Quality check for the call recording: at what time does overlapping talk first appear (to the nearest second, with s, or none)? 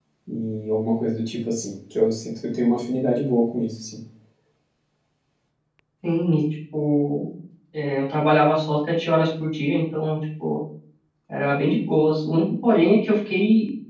none